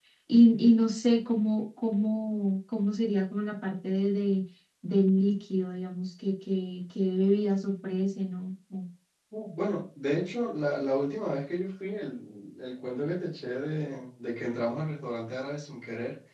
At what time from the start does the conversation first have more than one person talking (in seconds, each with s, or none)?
none